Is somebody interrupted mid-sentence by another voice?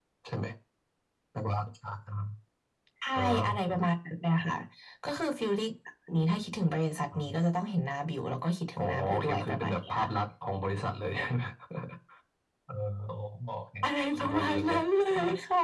Yes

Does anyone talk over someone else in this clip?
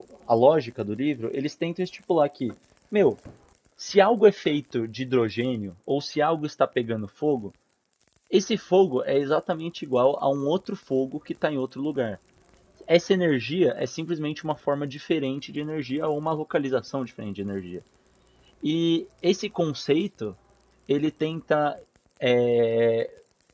No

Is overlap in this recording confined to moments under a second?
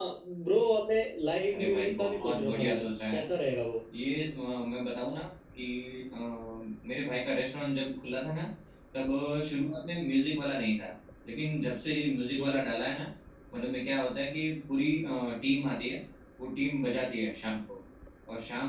No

